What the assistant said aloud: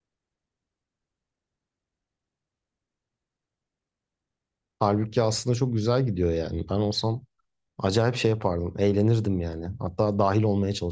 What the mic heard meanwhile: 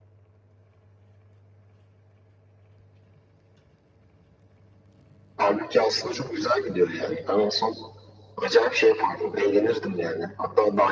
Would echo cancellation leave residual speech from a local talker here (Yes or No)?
No